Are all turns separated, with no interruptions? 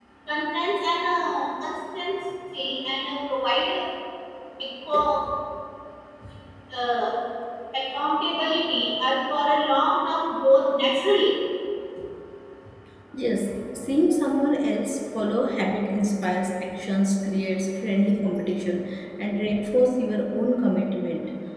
Yes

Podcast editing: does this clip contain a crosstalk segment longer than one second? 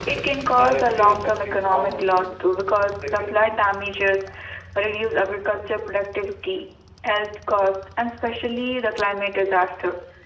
Yes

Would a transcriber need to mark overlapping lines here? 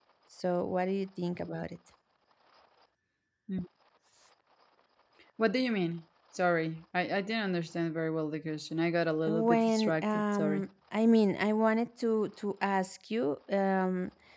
Yes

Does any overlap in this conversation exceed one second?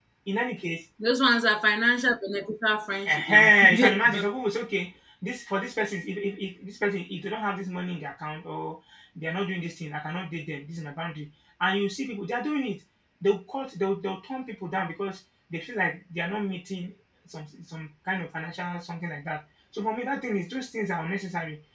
Yes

